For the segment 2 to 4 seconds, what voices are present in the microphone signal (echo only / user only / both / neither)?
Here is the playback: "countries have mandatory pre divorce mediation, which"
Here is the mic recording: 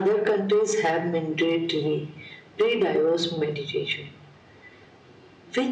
echo only